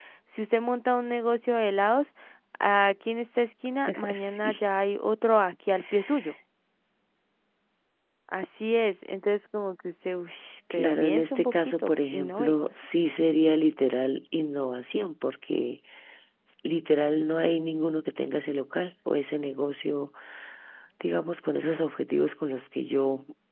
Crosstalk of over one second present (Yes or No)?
Yes